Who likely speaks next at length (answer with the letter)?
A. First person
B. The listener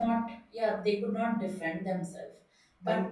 A